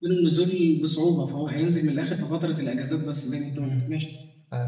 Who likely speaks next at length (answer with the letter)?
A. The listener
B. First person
A